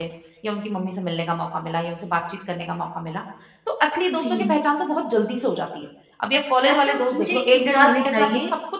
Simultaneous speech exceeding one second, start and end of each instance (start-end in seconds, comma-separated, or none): 6.7-8.3